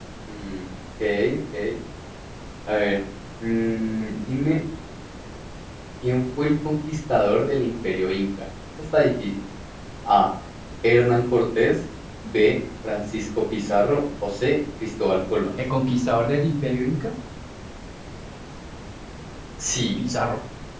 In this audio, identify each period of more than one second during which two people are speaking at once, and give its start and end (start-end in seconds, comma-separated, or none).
none